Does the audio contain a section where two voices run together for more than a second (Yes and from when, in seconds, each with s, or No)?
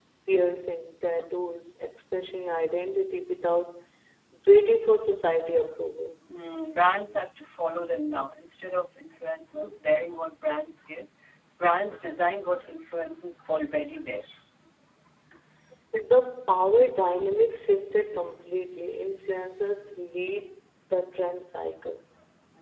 No